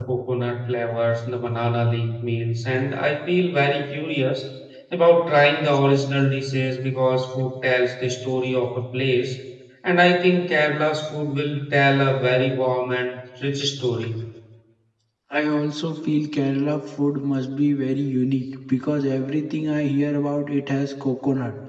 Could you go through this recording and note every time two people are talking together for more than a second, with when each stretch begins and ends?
none

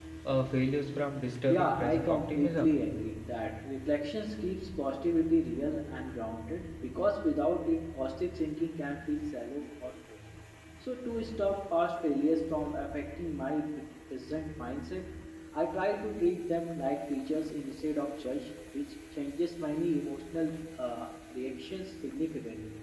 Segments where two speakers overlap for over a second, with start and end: 1.5-2.7

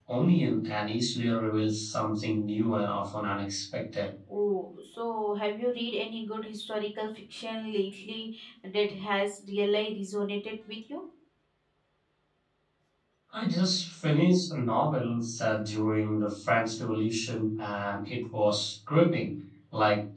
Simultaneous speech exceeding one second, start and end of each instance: none

